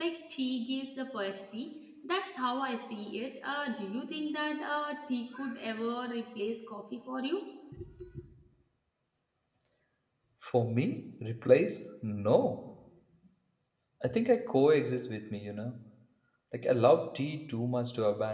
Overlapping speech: No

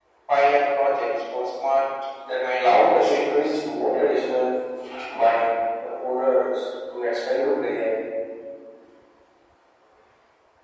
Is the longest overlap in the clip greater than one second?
Yes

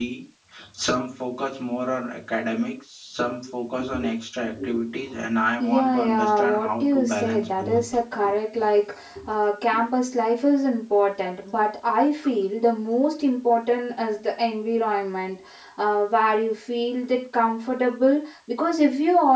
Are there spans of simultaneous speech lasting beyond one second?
Yes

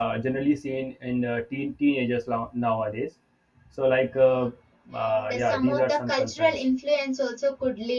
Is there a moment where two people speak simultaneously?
Yes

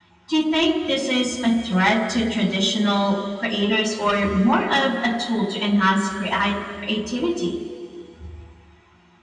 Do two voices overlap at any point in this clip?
No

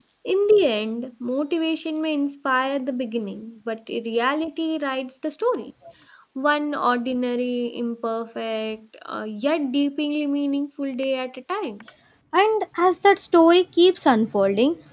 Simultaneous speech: No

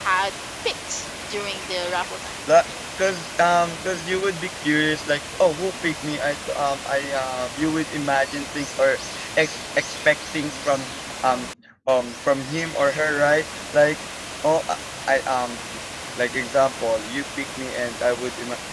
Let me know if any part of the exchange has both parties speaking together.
No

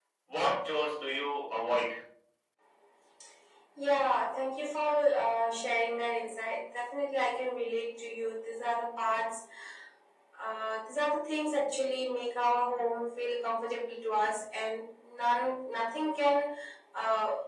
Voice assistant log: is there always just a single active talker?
Yes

